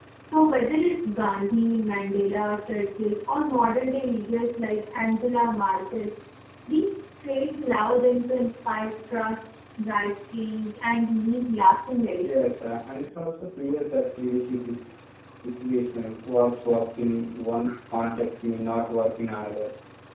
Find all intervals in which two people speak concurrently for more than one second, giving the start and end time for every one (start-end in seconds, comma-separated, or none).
none